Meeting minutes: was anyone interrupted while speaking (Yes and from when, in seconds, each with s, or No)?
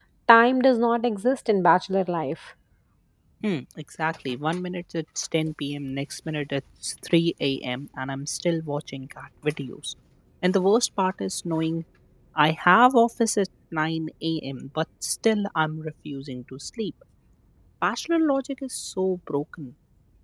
No